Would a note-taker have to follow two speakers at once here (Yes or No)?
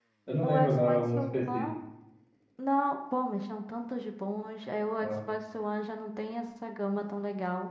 Yes